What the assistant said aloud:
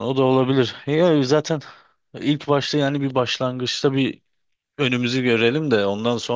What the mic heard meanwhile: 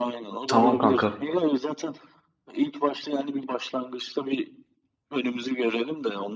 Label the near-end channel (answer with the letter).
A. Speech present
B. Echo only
A